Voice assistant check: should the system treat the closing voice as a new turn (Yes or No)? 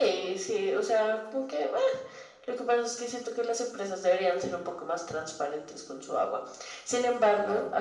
No